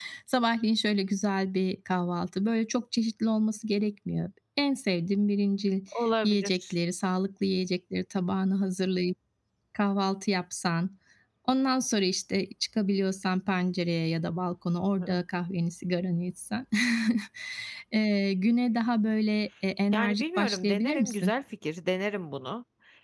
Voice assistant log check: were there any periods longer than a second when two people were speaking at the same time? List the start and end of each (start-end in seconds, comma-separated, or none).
19.9-21.3